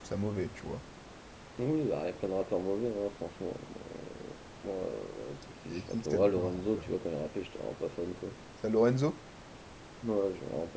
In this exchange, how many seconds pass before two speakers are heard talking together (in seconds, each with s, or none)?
5.7 s